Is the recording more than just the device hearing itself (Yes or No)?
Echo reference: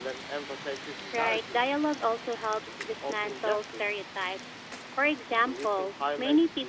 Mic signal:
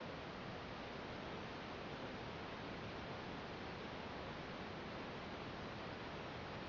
No